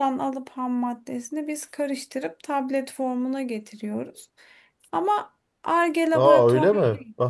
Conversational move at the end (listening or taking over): taking over